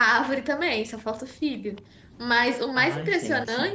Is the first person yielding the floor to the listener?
No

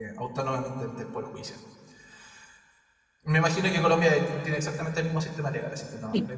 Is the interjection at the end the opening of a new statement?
Yes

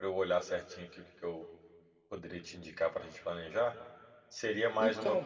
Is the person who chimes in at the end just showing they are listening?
Yes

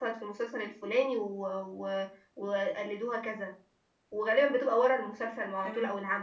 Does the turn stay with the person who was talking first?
Yes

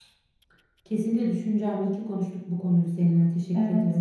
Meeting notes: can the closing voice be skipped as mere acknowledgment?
No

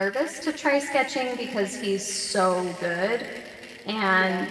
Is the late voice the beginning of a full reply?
No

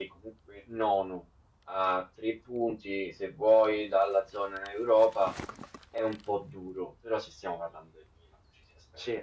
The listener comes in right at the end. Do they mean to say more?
No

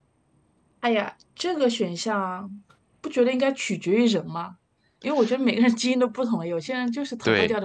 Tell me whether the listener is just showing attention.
No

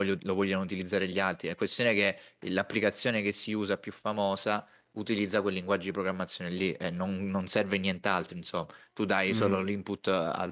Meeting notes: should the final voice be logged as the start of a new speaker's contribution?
No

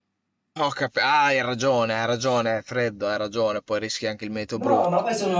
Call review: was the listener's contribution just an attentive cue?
No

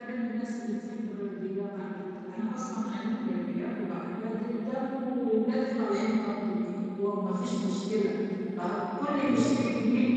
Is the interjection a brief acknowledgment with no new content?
Yes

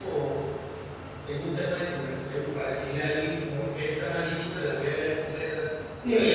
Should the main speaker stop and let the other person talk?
No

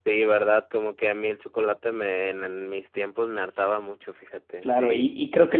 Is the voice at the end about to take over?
Yes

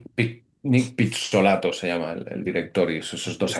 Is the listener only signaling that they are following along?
Yes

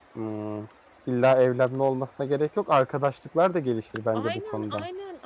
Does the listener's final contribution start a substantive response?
Yes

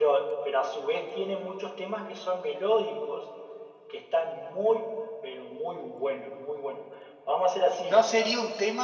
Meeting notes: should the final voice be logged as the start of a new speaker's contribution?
Yes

